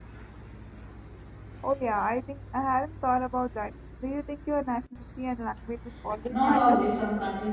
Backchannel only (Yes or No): No